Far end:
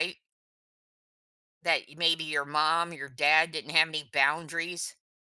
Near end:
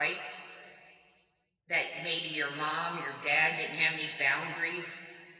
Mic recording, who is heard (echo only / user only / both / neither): echo only